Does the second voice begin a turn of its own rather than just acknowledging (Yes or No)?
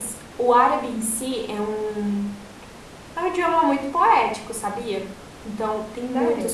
No